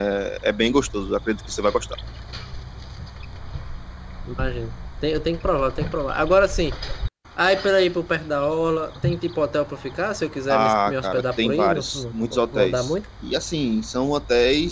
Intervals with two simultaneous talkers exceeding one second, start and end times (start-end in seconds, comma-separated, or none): 10.5-12.9